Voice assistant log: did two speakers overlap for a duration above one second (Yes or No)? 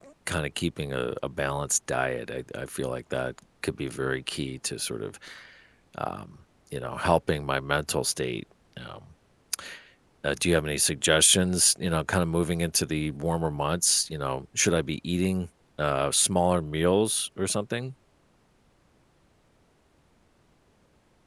No